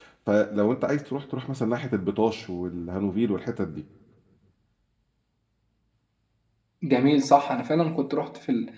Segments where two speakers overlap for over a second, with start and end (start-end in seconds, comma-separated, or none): none